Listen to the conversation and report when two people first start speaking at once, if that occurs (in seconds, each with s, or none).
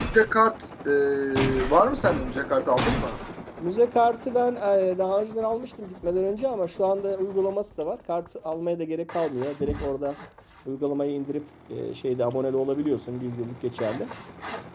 none